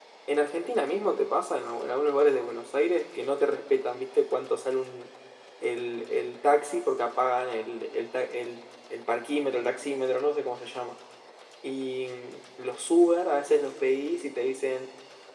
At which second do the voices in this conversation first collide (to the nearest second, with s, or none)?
none